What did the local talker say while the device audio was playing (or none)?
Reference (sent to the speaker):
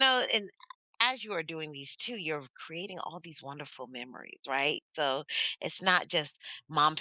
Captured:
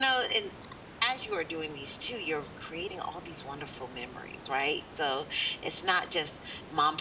none